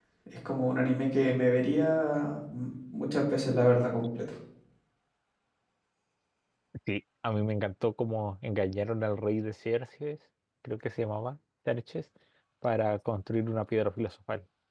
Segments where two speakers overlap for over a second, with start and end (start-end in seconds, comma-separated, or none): none